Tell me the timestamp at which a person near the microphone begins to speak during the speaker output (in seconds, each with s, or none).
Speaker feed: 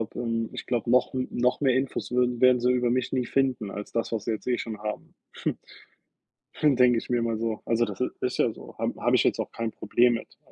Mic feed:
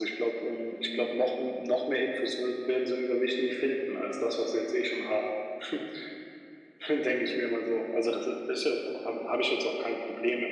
none